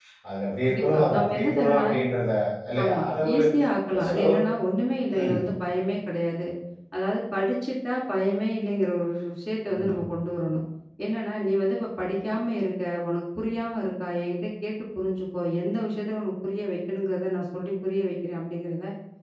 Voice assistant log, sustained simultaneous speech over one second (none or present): present